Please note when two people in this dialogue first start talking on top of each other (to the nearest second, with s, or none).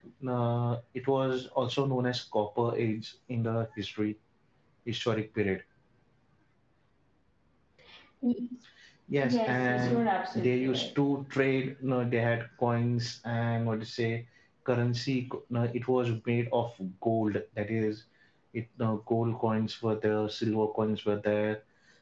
9 s